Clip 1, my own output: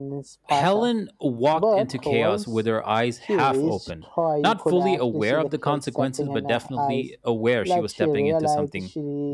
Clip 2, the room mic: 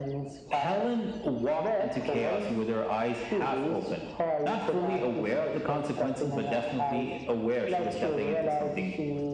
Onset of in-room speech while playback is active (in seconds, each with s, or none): none